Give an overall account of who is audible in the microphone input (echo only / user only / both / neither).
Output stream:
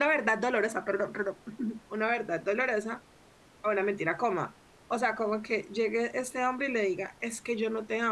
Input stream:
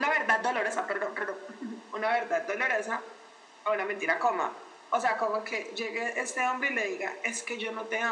echo only